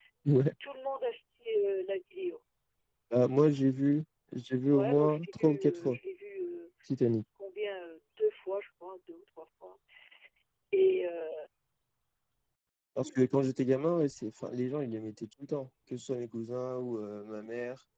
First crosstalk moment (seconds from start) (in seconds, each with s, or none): 4.7 s